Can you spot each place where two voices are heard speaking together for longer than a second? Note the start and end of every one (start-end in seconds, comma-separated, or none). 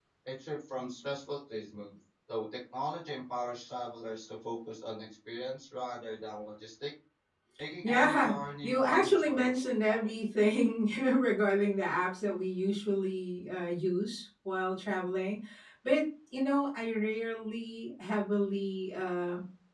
7.8-10.4